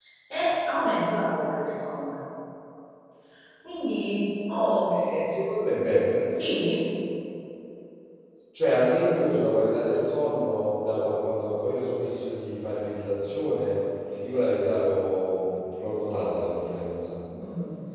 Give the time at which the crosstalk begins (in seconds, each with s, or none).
none